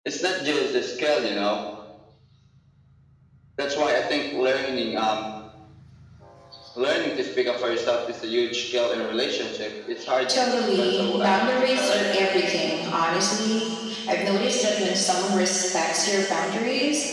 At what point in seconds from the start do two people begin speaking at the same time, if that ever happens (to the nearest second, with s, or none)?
11 s